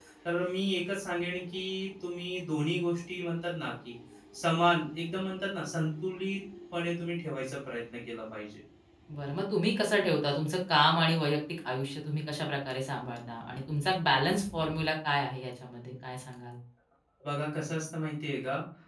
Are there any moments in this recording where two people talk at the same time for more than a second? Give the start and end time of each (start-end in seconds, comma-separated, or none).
none